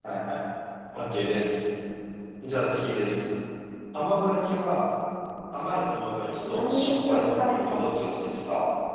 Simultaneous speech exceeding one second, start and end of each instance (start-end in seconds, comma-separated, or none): 6.4-8.0